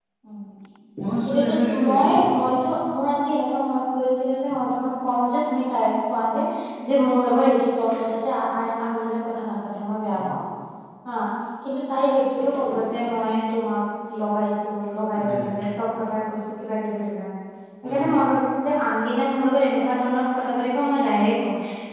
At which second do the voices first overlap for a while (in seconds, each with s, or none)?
1.3 s